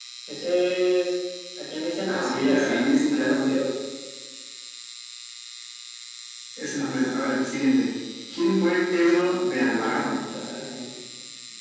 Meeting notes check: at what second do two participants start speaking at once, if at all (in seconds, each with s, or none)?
2.0 s